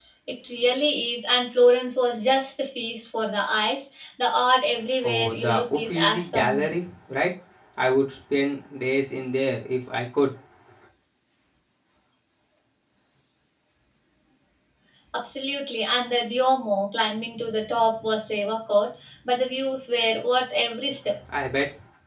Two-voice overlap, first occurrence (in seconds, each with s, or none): 5.0 s